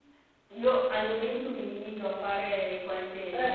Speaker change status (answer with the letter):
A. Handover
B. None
B